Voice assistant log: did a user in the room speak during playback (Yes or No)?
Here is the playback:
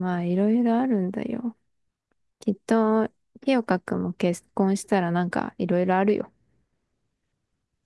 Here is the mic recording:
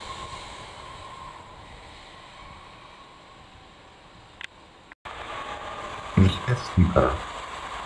Yes